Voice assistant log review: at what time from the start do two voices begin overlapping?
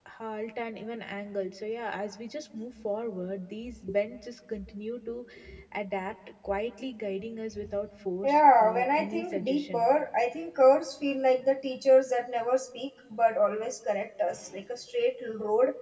8.2 s

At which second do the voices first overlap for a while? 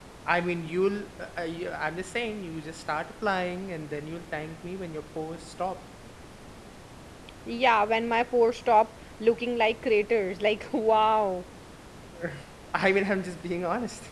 none

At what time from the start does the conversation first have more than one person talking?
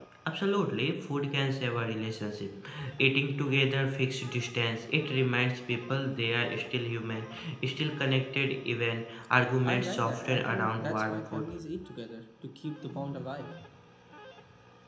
9.6 s

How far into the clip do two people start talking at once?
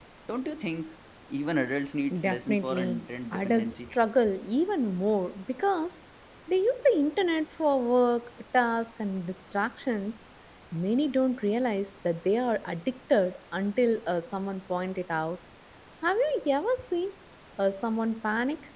2.1 s

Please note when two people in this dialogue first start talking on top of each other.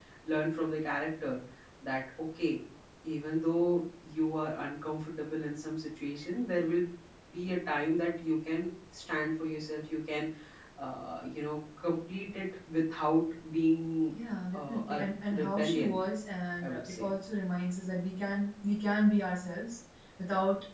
14.5 s

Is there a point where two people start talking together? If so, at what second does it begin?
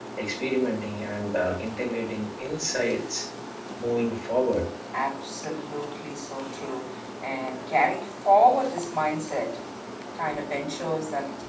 none

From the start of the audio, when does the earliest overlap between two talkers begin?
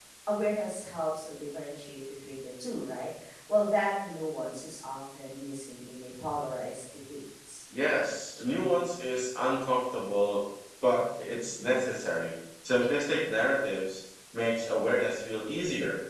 none

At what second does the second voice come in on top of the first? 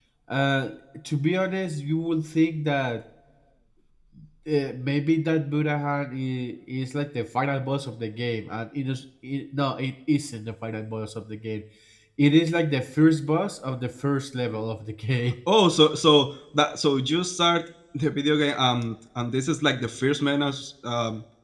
none

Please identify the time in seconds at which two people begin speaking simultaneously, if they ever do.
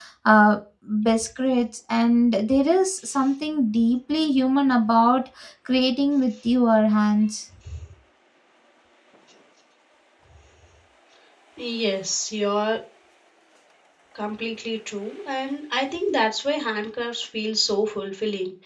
none

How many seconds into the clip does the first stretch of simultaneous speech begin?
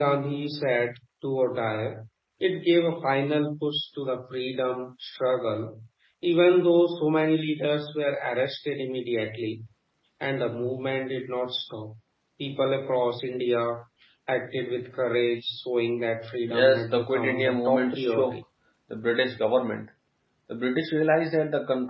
16.5 s

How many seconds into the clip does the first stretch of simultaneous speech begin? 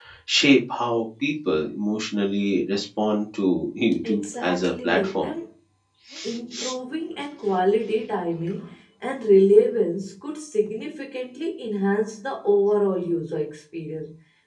4.0 s

